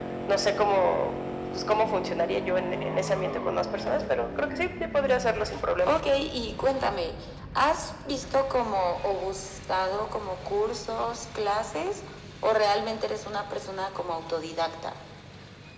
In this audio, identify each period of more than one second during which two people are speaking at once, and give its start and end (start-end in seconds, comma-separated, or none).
none